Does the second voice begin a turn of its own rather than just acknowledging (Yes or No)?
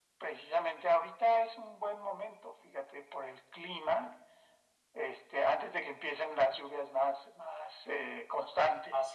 Yes